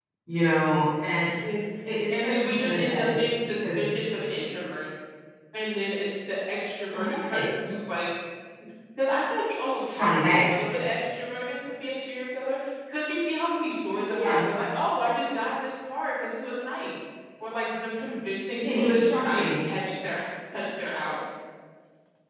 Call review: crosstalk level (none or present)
present